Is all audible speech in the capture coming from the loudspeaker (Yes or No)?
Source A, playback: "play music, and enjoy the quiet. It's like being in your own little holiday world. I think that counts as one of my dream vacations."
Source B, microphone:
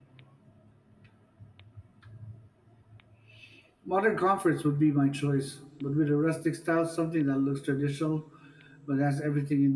No